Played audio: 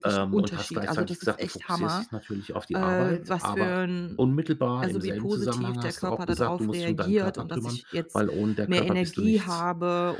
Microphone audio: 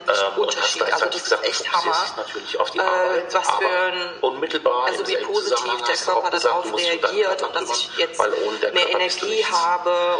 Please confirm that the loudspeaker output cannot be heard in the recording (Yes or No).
No